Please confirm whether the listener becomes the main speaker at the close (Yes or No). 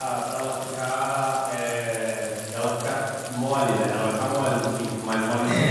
Yes